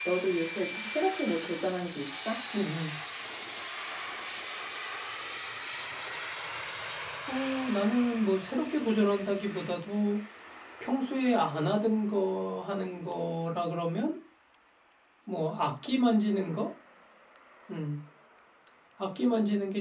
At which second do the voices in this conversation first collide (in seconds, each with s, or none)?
none